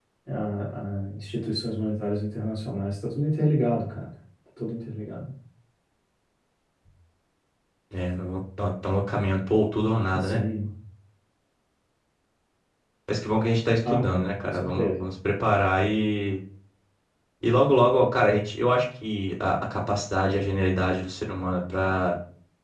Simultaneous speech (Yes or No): Yes